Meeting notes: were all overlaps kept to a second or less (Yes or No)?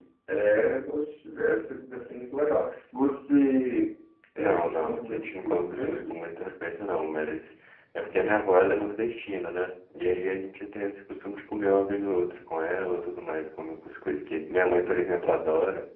No